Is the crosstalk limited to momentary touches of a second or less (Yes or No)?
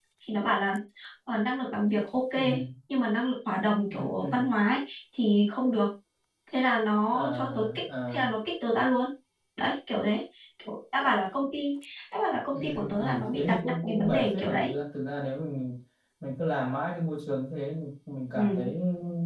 No